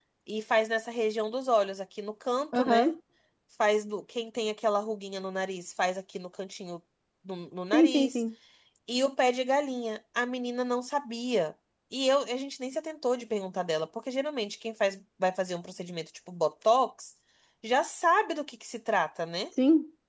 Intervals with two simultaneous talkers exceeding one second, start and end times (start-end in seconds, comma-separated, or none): none